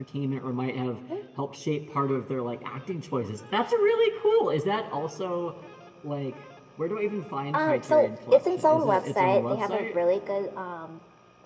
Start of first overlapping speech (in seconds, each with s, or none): 7.5 s